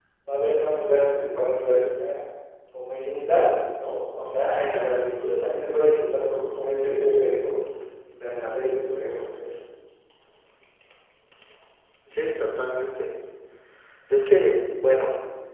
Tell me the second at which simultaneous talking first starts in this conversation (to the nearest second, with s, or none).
none